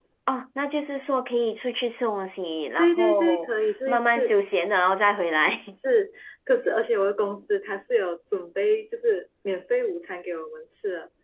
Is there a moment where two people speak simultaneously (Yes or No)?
Yes